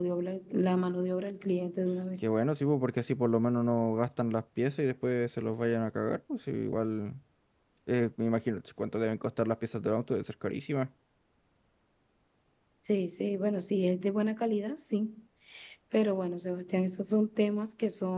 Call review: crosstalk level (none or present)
none